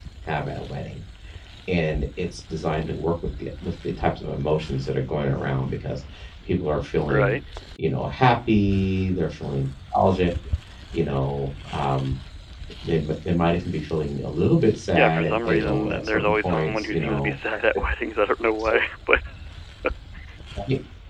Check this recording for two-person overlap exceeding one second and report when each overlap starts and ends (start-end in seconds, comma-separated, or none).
15.0-17.3